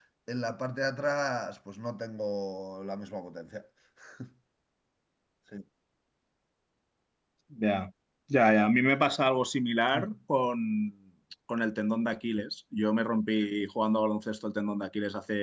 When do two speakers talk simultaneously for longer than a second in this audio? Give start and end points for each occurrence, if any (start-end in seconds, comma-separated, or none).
none